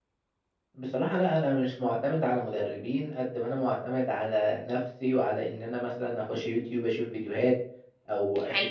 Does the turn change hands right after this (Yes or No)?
No